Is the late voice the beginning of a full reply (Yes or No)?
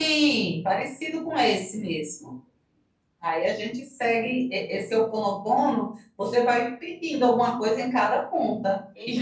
Yes